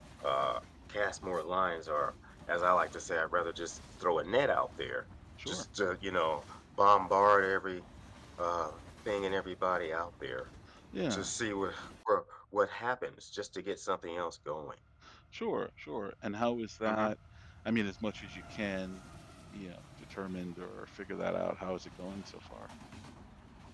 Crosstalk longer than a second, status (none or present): none